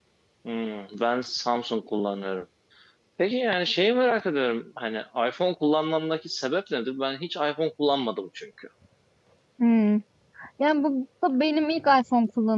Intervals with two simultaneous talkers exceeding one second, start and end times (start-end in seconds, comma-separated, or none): none